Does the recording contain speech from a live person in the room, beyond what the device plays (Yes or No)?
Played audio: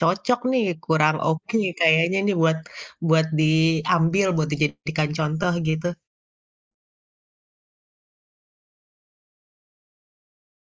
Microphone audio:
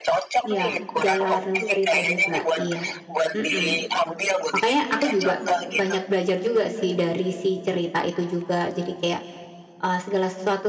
Yes